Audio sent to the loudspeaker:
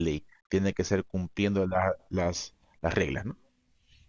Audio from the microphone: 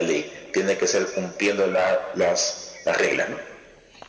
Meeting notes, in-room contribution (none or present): none